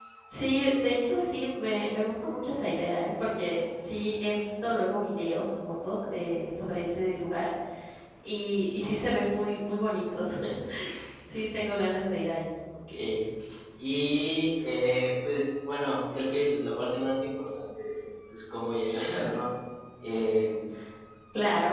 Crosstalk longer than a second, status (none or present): none